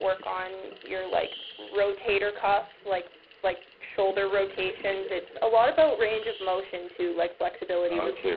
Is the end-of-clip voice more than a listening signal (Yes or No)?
Yes